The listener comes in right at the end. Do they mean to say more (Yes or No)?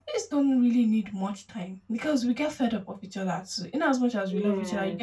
No